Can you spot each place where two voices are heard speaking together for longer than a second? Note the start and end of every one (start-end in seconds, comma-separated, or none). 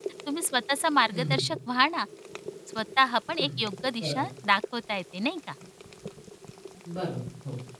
none